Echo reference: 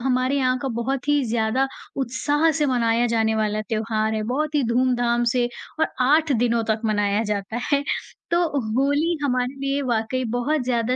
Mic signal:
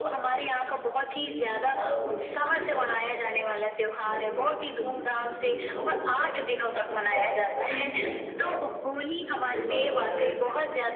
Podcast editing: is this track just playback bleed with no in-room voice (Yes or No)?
No